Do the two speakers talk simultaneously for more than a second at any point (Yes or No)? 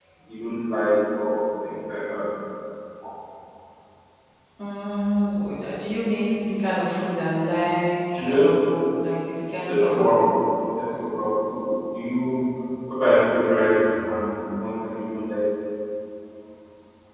No